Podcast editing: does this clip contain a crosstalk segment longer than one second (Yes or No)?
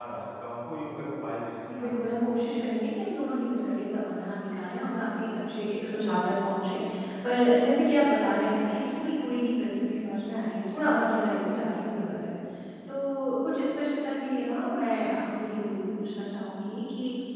No